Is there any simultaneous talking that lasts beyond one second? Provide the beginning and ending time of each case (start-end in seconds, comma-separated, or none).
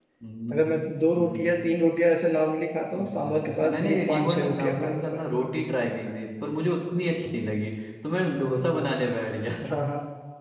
2.9-5.2